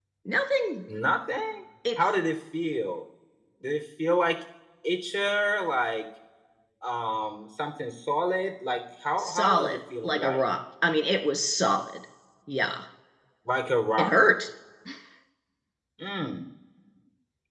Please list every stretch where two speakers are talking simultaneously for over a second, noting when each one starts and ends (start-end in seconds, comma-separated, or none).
9.2-10.4